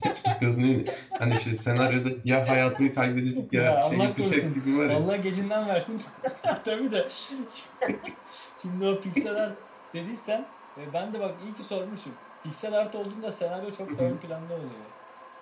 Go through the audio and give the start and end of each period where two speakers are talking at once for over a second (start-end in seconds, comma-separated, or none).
3.5-5.0